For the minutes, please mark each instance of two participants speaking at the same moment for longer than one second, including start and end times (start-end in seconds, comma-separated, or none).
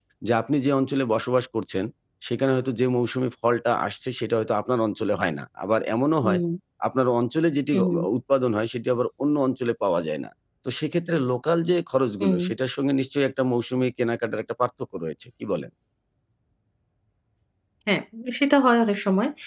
none